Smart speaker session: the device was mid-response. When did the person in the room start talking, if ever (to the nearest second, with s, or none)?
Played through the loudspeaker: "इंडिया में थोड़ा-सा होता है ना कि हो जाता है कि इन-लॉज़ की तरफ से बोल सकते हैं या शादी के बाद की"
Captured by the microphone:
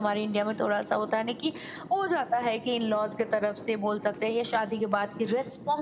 none